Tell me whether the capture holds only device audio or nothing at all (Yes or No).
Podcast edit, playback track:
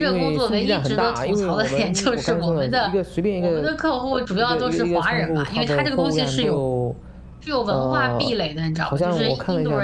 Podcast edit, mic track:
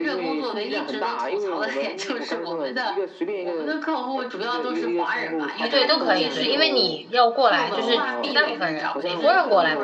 No